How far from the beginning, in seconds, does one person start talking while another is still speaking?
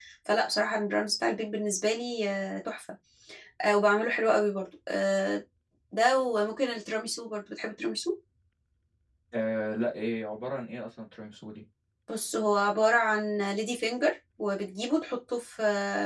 none

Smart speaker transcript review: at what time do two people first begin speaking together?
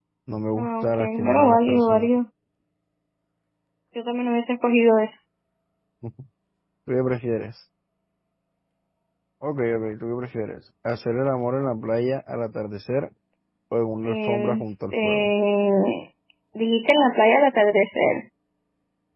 0.6 s

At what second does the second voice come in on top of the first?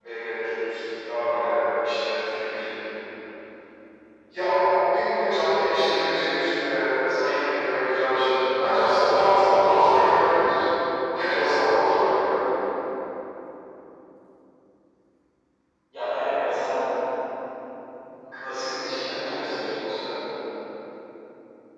18.8 s

